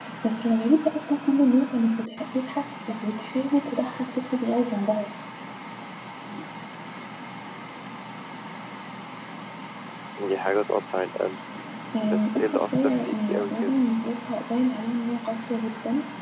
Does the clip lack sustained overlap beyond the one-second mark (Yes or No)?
No